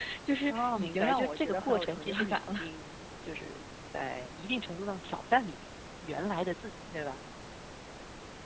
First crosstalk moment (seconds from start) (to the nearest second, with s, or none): 1 s